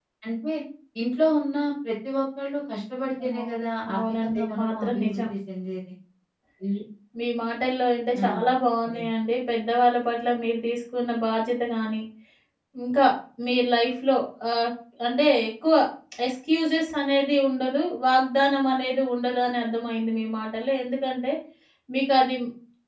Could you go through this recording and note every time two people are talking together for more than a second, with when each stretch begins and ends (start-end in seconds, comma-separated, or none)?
3.9-5.3